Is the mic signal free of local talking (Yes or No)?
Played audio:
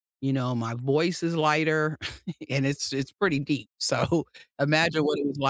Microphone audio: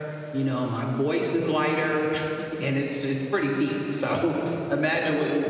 Yes